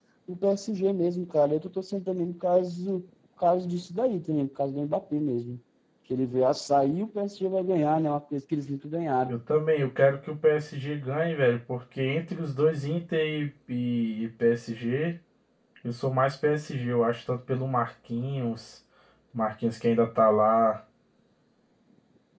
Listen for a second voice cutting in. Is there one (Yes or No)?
No